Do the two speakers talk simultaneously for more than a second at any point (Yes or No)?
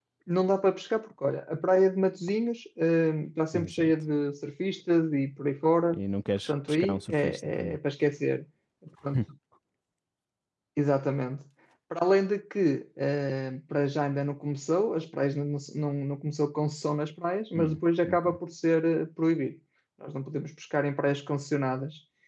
Yes